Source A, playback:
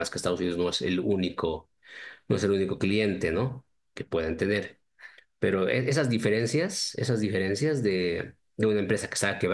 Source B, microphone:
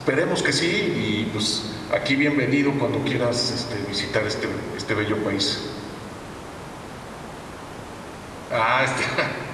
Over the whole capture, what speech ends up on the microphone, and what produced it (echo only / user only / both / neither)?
user only